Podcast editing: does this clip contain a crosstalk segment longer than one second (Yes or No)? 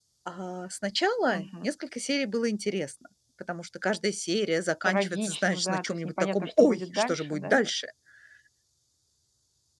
Yes